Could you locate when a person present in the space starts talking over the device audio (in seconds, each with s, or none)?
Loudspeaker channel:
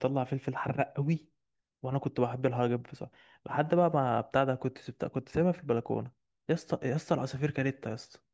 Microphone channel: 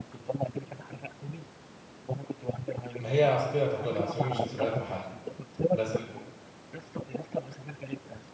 3.0 s